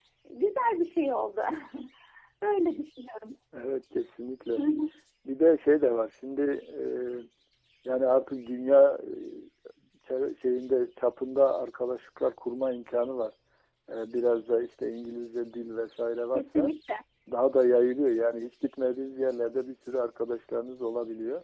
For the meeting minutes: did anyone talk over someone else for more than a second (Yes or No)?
No